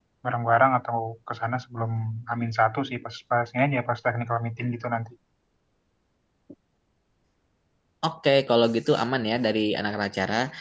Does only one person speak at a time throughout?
Yes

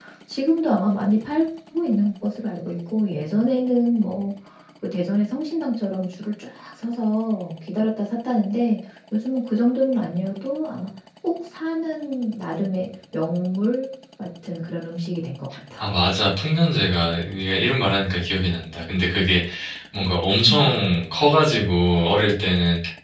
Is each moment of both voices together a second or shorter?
Yes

